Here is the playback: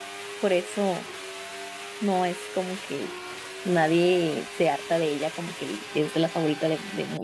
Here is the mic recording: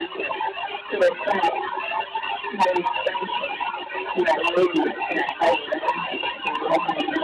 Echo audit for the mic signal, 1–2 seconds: echo only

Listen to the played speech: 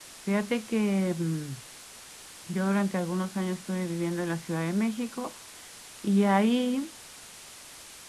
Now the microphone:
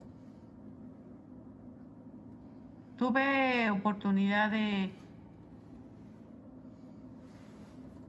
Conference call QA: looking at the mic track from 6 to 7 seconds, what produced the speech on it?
neither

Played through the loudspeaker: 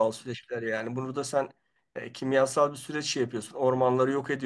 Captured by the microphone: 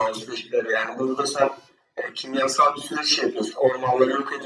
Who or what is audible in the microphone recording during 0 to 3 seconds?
echo only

